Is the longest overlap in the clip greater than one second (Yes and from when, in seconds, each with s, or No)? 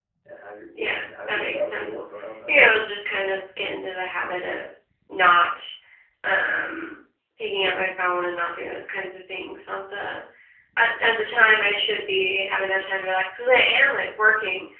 Yes, from 0.7 s